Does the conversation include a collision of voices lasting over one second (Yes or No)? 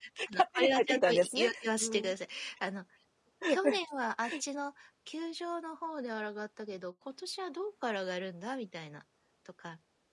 Yes